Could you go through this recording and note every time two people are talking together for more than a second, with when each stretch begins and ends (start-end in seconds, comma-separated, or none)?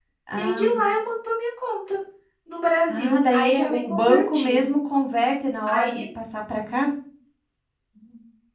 2.9-4.7